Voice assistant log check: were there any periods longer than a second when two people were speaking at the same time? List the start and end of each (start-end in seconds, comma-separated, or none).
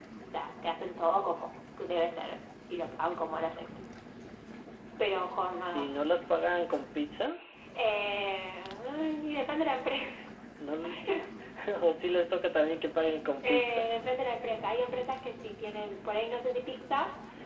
none